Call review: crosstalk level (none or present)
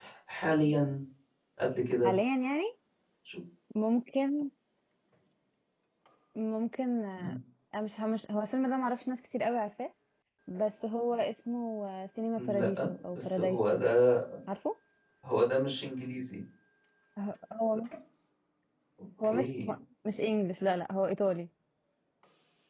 present